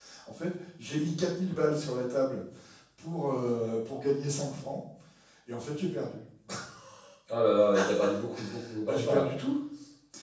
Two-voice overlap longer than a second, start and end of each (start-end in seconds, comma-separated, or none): none